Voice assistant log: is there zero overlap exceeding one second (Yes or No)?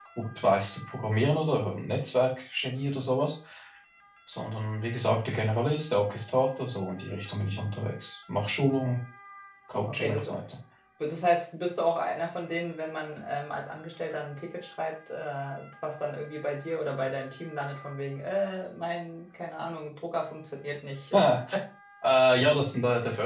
Yes